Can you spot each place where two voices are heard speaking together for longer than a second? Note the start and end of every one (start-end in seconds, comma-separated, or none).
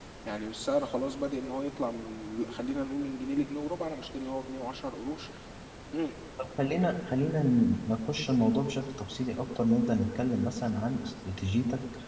none